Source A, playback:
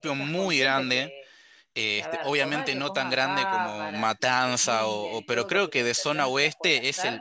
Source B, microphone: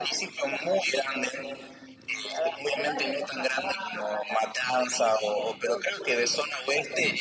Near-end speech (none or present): none